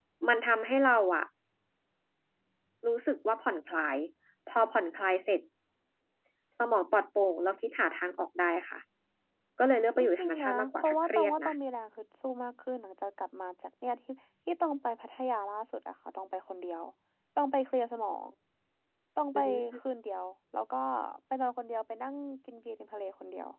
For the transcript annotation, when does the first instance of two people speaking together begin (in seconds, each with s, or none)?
10.0 s